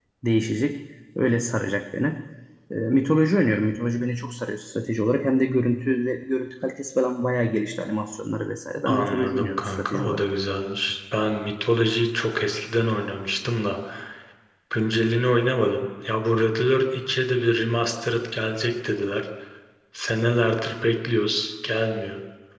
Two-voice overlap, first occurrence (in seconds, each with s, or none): 8.9 s